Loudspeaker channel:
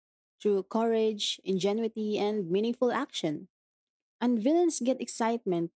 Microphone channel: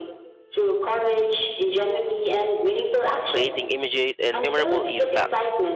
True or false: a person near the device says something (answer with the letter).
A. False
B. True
B